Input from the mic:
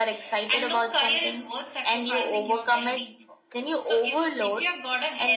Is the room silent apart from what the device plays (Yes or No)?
Yes